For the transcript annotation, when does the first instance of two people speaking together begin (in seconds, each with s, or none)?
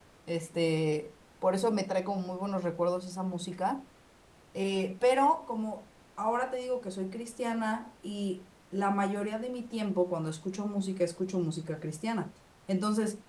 none